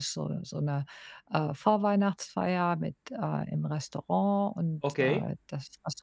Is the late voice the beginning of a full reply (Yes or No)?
No